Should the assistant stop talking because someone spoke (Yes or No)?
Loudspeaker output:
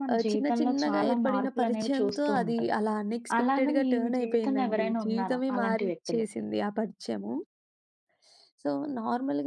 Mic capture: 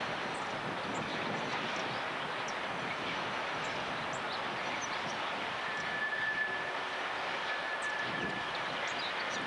No